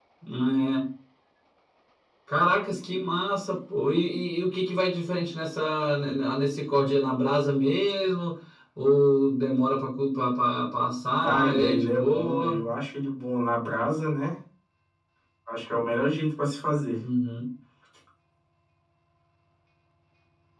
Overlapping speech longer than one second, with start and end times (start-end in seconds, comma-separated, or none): 11.2-12.6